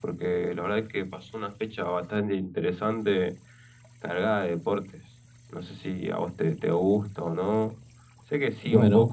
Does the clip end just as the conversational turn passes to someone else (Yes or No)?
Yes